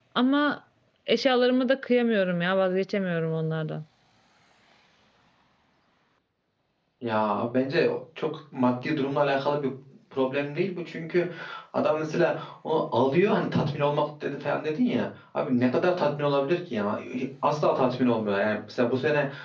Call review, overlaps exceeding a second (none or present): none